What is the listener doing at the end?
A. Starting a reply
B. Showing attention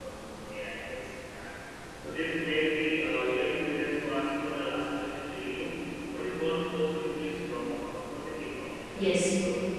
A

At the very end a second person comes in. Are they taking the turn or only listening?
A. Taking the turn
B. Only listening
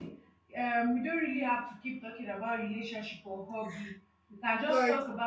B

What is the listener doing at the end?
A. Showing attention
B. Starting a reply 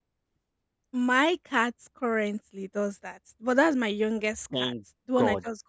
B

